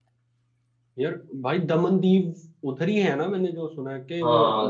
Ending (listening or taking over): taking over